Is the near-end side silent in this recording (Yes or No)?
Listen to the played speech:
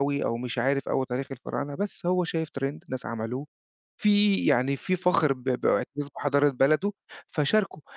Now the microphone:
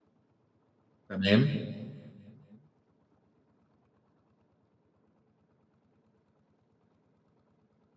No